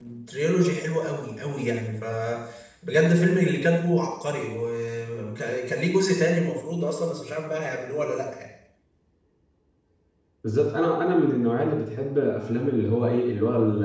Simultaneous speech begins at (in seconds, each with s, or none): none